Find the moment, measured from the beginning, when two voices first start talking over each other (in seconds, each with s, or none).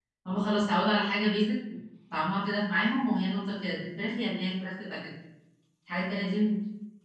none